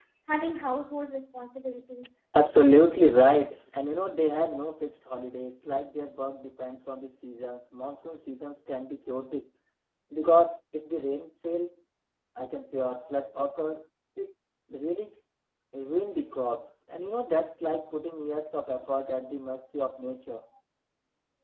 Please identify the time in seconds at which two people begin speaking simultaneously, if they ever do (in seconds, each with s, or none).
none